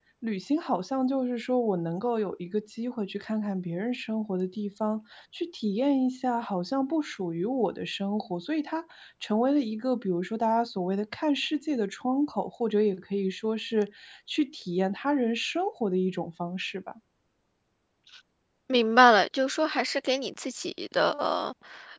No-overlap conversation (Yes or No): Yes